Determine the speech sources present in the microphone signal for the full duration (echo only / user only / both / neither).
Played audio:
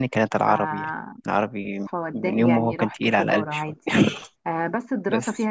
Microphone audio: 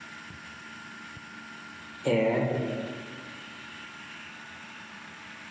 user only